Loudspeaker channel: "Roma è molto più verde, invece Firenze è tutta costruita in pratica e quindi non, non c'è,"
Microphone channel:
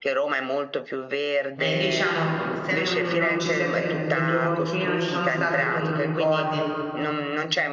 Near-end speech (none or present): present